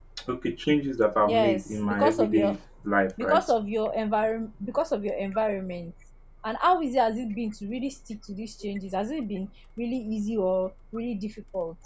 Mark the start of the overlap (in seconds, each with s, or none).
1.2 s